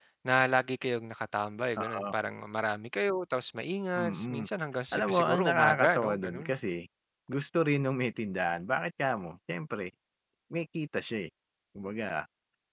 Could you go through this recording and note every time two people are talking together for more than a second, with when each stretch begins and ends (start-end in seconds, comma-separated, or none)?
4.9-6.5